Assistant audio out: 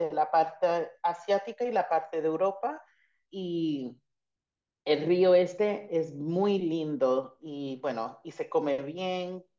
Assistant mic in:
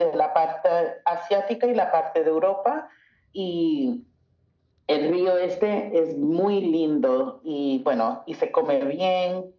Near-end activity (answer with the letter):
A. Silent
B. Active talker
A